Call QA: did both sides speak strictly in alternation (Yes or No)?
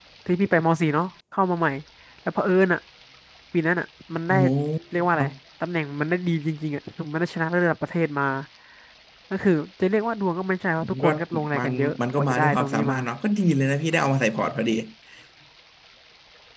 No